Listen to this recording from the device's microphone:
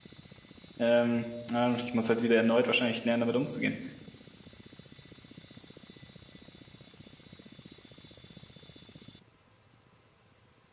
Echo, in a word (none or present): none